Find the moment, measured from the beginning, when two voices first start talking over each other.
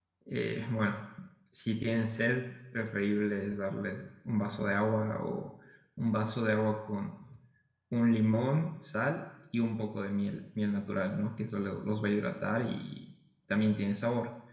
none

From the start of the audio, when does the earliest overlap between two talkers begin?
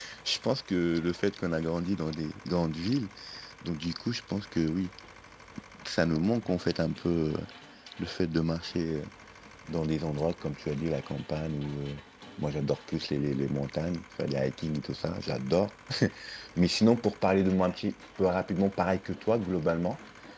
none

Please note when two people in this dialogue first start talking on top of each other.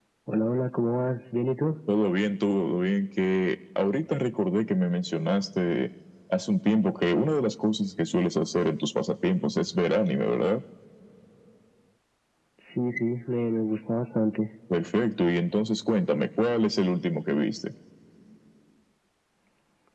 none

